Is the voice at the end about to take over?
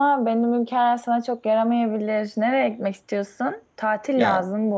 No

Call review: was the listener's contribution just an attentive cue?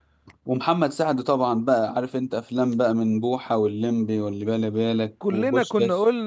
No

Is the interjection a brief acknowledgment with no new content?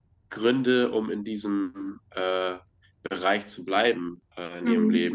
Yes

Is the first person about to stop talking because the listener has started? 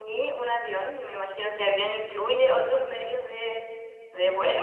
Yes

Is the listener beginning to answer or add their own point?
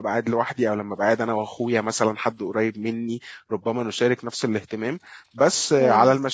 No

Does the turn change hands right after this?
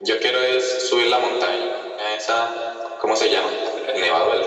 Yes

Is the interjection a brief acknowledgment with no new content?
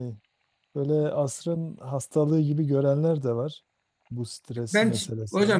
No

